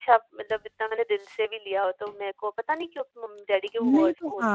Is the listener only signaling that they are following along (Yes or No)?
No